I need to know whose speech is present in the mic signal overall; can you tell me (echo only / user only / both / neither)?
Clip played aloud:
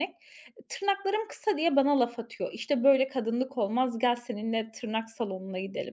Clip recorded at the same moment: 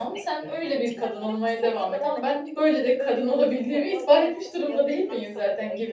both